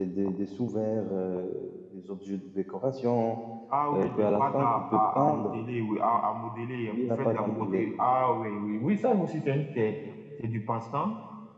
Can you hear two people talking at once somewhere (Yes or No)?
Yes